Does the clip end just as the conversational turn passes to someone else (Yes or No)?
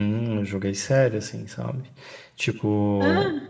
No